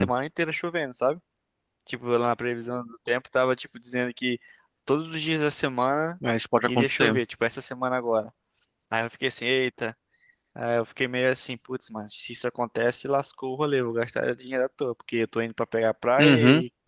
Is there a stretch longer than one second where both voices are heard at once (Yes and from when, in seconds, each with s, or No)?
No